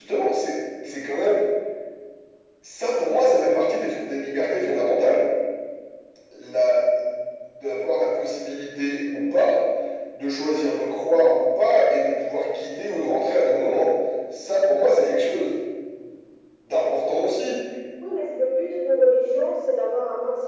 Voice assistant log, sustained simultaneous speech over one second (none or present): none